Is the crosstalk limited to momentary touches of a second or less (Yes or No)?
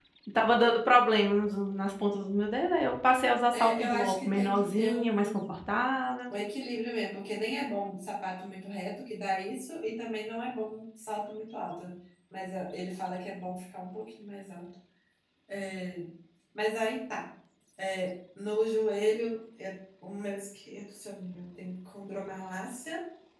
No